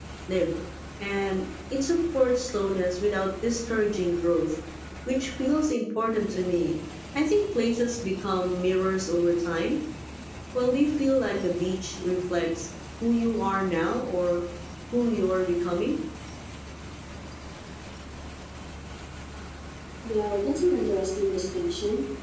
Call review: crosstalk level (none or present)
none